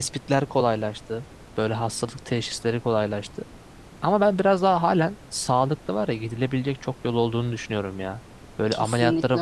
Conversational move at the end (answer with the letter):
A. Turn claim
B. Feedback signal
B